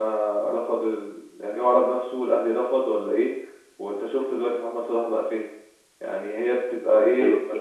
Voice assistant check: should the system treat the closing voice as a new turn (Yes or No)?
Yes